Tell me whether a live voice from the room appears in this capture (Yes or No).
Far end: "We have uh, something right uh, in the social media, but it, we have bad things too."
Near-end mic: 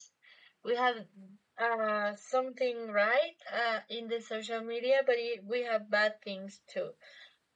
No